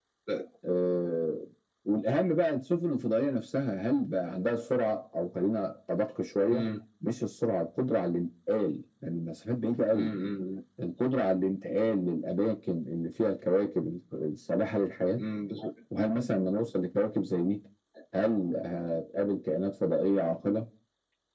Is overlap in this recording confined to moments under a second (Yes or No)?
Yes